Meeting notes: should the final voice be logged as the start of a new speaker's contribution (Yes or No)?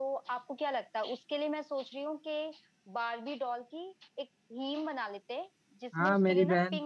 Yes